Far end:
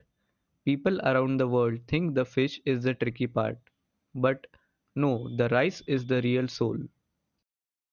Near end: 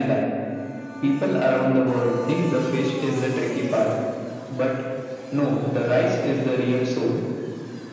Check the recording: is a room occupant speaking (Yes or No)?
No